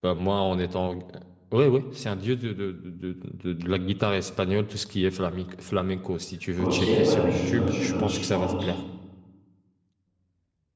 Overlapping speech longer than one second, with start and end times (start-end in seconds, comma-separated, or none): 6.6-8.5